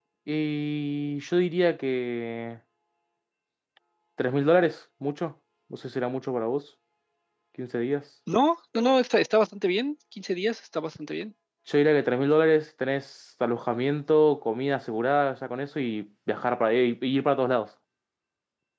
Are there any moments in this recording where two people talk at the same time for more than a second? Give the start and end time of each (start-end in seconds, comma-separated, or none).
none